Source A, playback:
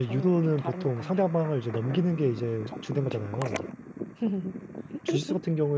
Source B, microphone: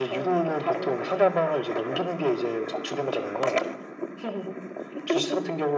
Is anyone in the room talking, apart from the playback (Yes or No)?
No